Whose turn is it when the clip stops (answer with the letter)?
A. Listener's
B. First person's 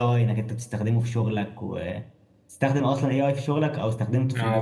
A